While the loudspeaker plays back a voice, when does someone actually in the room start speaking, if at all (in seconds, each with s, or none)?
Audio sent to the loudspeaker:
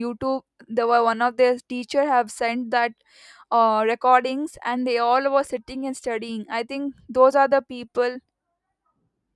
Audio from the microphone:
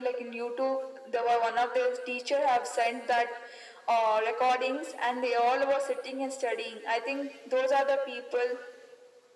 none